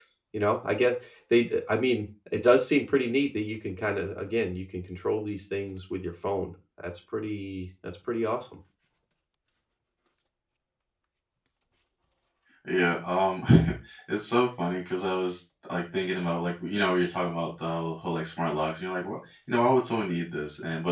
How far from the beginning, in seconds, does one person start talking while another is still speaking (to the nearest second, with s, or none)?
none